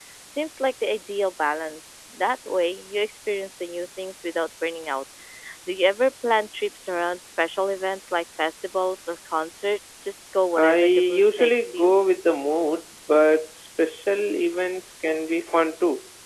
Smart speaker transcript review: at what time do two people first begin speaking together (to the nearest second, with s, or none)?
11 s